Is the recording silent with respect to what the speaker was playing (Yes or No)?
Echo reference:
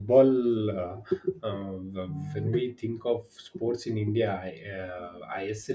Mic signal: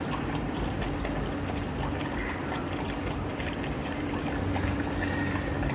Yes